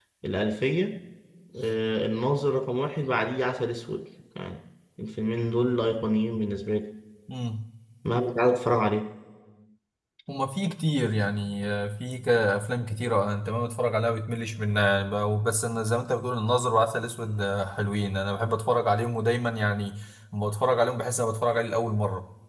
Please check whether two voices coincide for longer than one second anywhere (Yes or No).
No